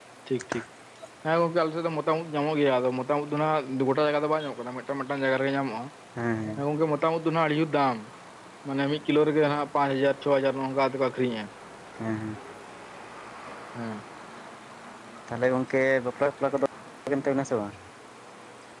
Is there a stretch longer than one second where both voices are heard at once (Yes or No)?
No